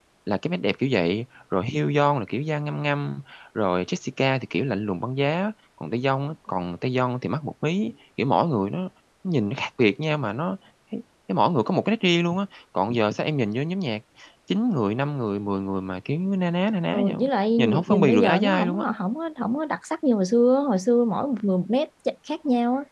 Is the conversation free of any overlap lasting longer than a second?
No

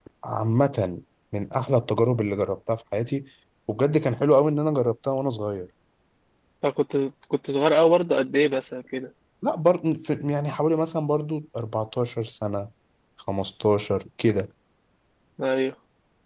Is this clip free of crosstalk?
Yes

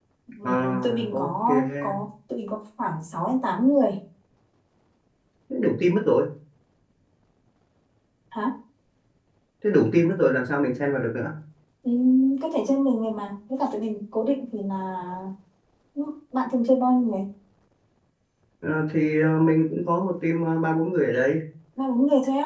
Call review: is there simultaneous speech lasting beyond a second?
Yes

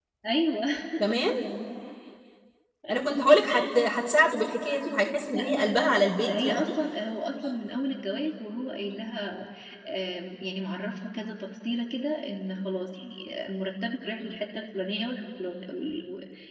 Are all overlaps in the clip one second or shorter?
No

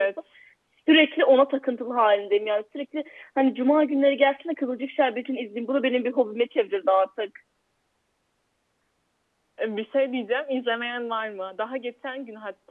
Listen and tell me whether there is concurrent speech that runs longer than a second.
No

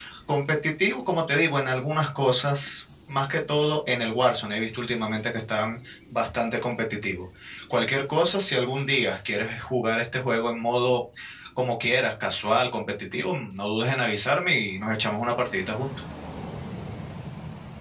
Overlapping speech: No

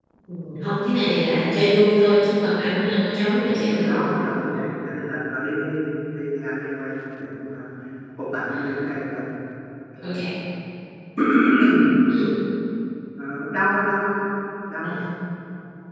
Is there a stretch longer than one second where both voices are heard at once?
No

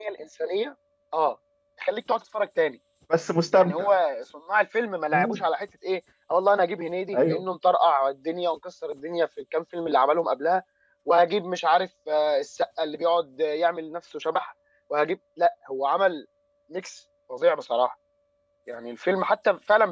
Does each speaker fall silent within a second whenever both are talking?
Yes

